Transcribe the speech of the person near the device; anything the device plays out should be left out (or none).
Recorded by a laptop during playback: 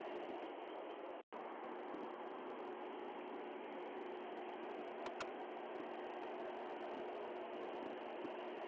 none